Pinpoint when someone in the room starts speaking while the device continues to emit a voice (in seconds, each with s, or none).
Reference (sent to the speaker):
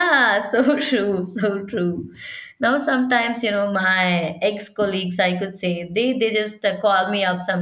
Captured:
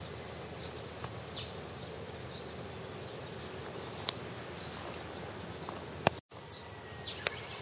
none